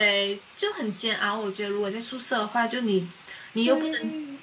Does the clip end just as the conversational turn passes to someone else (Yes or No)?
No